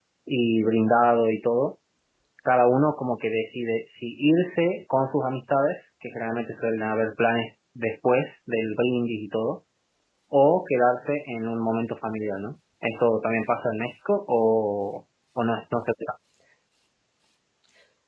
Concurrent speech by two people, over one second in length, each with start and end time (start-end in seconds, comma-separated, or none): none